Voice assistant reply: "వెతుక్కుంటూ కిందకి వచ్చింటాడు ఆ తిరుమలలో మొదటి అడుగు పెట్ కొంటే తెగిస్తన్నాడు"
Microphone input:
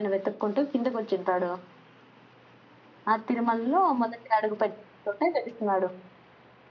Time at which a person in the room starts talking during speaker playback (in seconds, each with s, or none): none